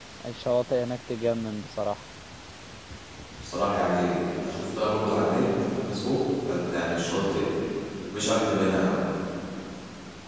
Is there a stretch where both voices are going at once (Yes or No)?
No